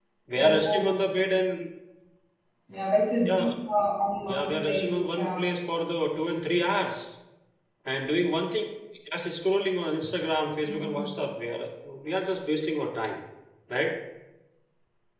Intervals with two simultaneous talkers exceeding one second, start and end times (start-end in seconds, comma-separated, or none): 4.2-5.5